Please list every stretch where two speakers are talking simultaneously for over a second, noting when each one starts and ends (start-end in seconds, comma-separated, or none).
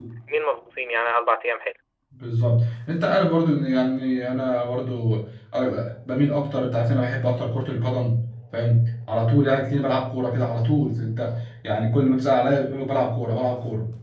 none